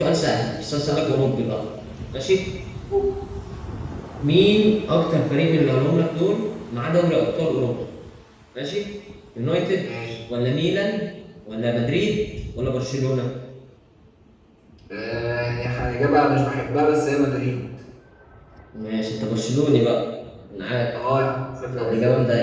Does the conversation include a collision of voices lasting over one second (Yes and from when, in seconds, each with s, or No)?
No